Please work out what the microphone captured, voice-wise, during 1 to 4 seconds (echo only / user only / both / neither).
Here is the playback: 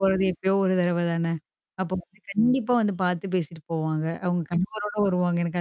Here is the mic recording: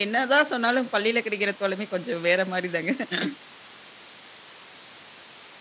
user only